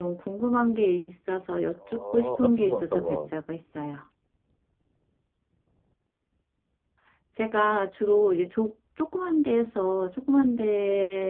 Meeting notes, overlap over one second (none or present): present